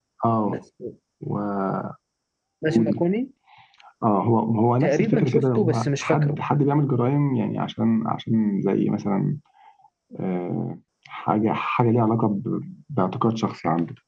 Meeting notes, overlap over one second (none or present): present